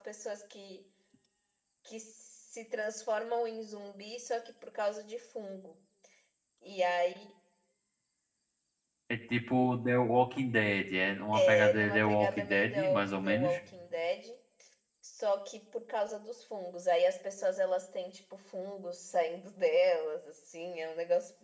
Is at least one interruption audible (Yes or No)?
Yes